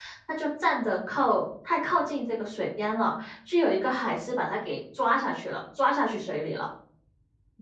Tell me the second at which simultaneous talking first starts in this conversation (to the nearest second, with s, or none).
none